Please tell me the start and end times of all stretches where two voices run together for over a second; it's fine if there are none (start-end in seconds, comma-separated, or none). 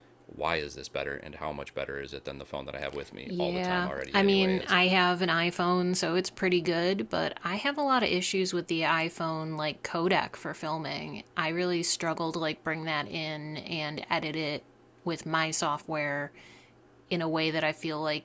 3.3-4.7